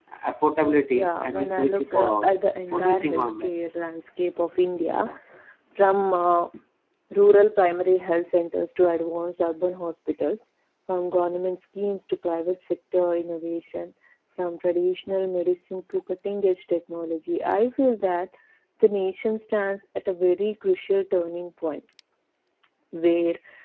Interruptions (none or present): present